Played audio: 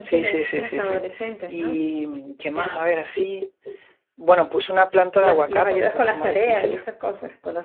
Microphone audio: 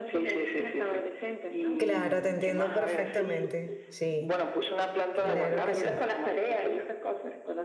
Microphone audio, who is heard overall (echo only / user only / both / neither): both